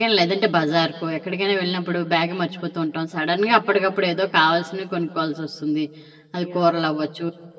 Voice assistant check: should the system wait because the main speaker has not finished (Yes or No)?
Yes